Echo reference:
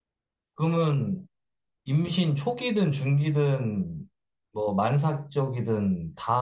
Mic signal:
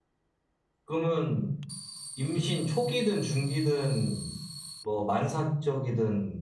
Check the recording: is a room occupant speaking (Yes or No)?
No